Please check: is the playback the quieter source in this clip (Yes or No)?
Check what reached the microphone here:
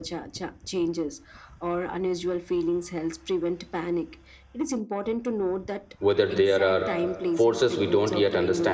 Yes